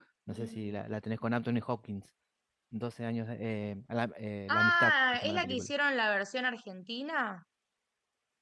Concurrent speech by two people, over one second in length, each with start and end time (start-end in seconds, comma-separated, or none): 4.5-5.7